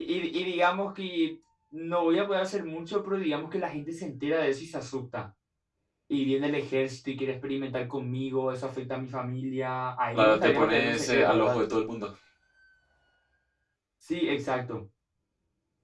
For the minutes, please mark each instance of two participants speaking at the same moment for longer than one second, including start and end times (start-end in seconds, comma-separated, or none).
10.2-11.6